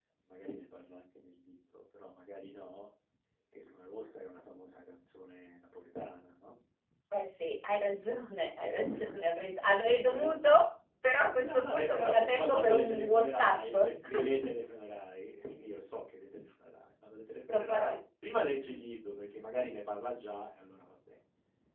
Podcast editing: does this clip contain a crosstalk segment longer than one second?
Yes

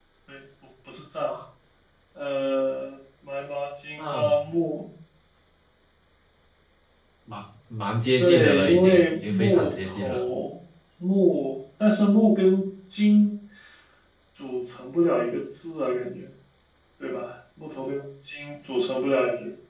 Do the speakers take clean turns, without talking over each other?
No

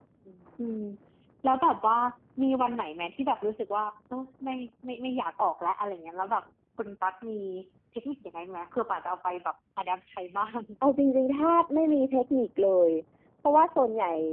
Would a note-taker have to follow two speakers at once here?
No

